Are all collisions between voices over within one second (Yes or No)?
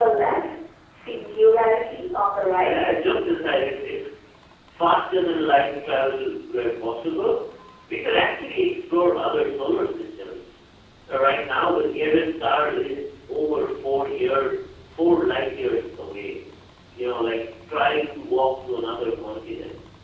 Yes